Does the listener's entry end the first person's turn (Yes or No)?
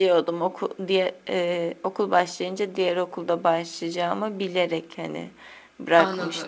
Yes